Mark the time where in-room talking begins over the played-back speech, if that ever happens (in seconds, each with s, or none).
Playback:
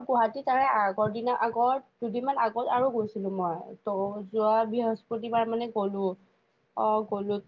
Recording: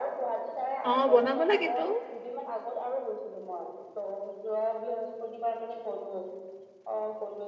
0.8 s